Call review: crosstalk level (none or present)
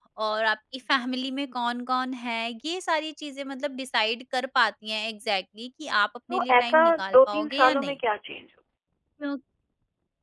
present